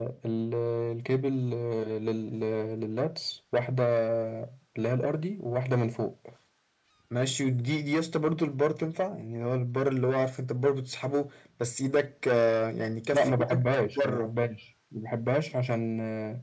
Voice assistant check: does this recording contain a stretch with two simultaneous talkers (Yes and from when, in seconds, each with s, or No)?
Yes, from 13.1 s